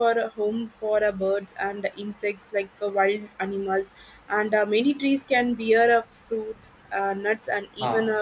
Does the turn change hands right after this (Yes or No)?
No